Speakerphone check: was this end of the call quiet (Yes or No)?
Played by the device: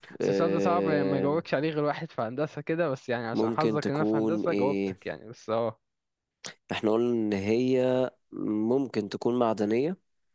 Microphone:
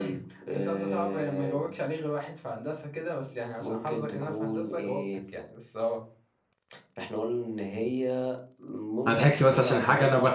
No